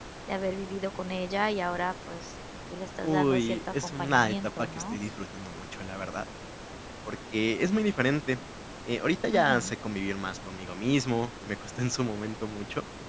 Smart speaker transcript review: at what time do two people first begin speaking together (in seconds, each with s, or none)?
3.0 s